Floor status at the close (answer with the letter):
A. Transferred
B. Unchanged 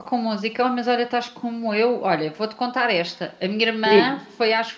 B